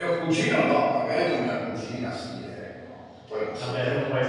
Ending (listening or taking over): taking over